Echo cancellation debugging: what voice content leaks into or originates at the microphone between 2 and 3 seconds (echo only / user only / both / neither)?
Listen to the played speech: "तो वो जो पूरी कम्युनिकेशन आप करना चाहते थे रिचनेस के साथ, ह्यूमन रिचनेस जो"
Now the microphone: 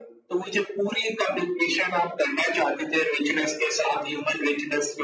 echo only